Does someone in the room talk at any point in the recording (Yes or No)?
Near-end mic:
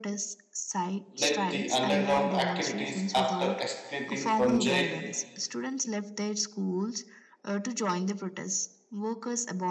Yes